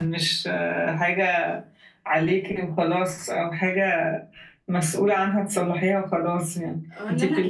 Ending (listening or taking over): taking over